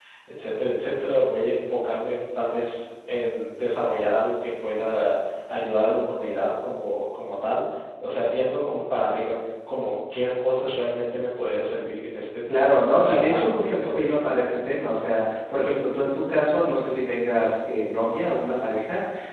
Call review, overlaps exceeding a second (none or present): present